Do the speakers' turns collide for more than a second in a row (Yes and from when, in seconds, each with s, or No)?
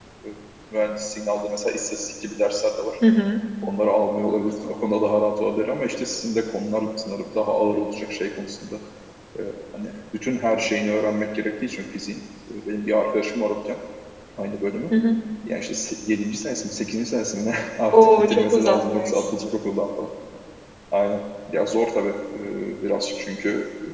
Yes, from 17.9 s